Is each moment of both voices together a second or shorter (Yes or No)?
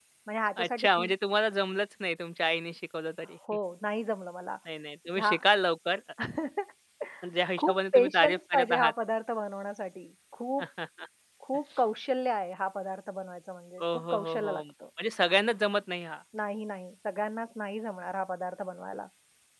No